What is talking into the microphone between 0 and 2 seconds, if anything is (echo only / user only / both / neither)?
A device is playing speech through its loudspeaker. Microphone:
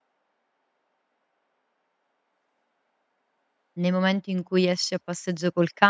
neither